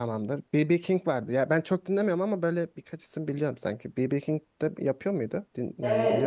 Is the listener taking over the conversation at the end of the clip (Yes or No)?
Yes